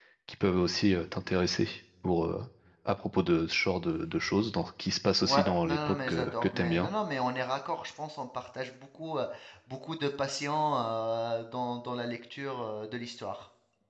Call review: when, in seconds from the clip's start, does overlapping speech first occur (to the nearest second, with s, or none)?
5 s